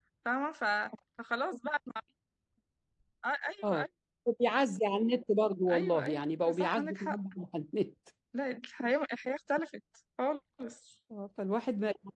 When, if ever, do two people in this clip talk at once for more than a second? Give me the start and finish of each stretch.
5.7-7.2

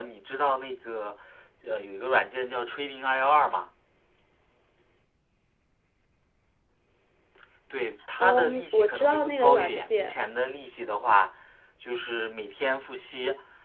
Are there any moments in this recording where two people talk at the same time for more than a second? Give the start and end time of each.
8.2-10.2

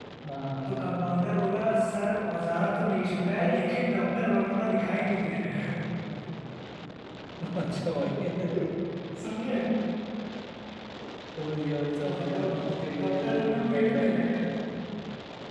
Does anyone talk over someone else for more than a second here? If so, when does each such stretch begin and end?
13.0-14.2

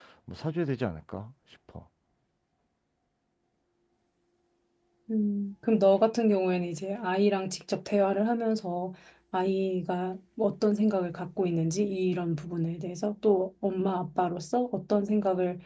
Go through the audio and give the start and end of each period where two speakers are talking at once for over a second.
none

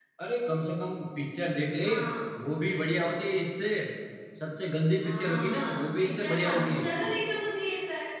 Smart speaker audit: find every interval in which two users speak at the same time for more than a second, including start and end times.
5.0-6.8

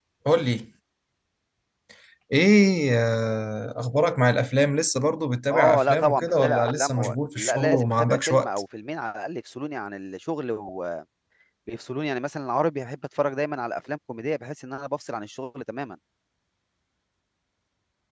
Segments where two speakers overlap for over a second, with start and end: 5.5-8.5

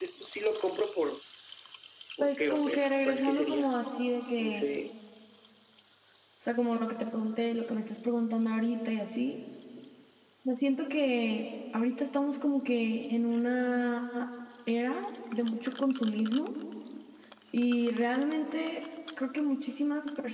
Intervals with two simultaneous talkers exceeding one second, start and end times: 2.2-3.7

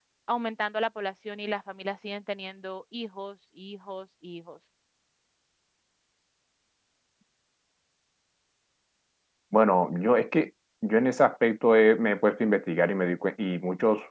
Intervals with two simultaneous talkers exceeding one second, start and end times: none

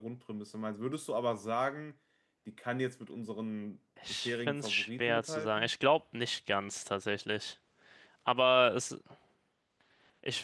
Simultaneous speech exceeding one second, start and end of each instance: 4.1-5.7

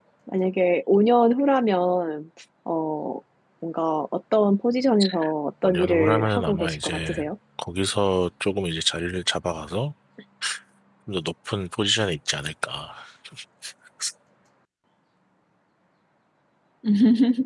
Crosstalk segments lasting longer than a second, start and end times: 5.6-7.3

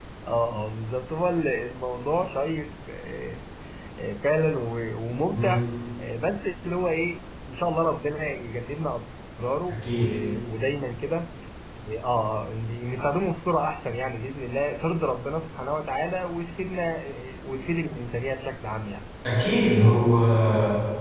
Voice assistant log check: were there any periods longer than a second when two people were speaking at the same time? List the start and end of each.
none

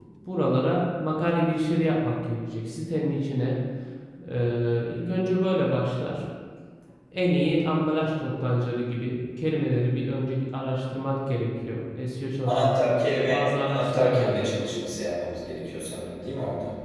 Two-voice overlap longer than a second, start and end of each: 12.4-14.3

